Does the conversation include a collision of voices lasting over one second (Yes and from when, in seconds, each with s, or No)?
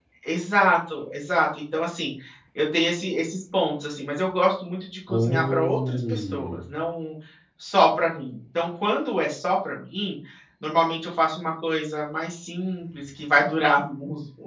Yes, from 5.1 s